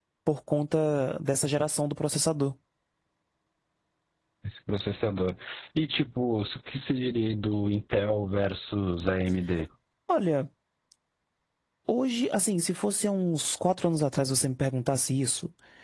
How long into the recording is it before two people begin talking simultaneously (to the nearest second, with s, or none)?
none